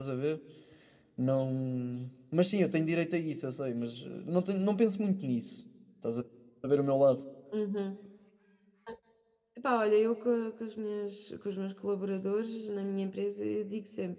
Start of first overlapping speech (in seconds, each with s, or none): none